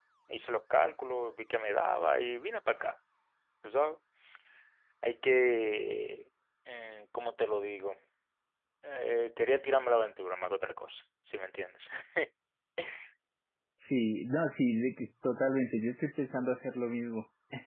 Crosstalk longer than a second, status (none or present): none